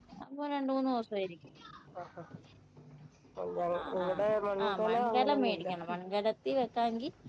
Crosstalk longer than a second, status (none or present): present